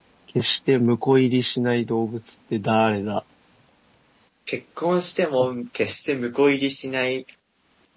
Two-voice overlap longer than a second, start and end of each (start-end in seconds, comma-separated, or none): none